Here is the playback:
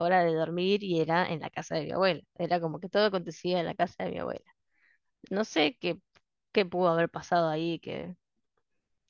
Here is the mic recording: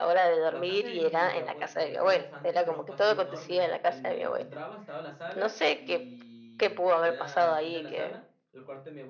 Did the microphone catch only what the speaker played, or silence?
No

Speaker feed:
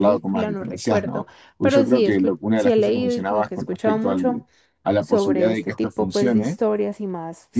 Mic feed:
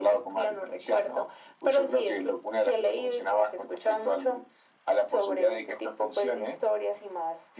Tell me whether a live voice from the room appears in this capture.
No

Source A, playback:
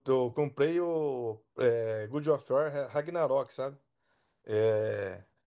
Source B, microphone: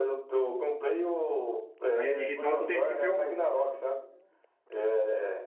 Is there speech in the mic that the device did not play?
Yes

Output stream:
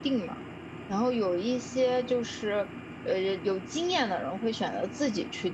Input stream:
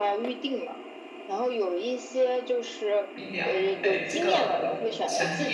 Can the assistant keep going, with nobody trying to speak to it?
No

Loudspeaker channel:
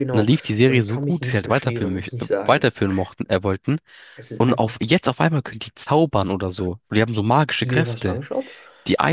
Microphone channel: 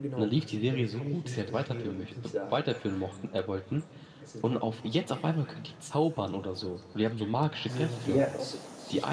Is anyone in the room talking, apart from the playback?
Yes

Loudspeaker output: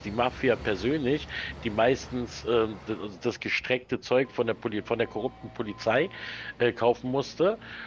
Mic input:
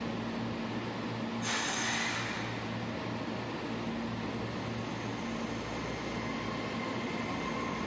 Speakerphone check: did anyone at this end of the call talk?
No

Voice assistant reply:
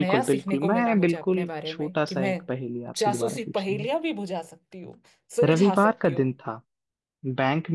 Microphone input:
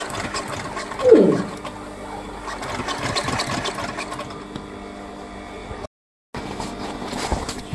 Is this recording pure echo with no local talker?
No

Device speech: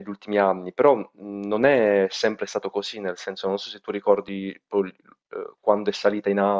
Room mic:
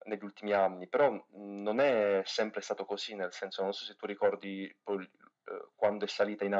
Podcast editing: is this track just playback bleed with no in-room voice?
Yes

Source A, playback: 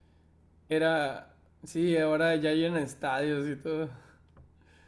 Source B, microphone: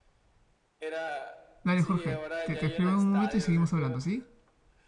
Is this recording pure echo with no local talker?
No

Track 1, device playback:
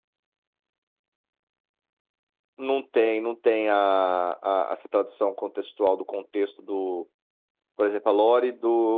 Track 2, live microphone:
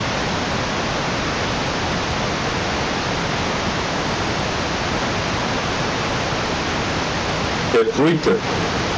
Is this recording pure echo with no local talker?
No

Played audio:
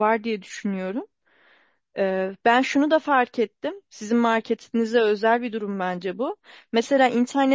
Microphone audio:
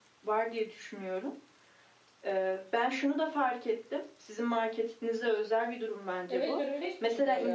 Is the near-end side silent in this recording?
No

